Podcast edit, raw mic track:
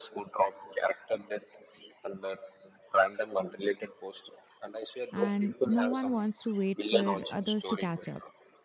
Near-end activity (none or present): present